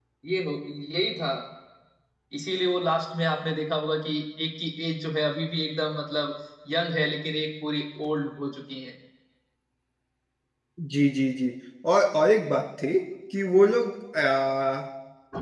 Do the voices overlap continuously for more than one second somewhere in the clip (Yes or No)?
No